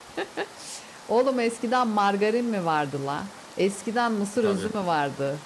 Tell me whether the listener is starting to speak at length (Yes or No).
No